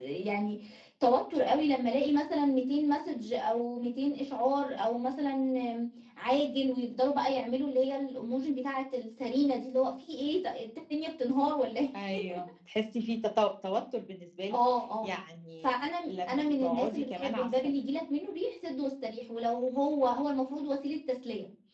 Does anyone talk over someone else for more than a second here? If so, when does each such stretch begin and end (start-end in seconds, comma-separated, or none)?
16.1-17.5